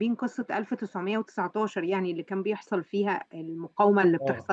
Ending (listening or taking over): taking over